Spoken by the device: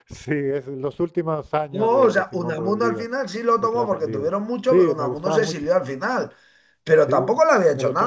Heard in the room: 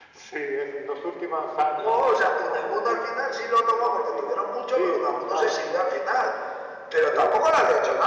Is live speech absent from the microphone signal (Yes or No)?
Yes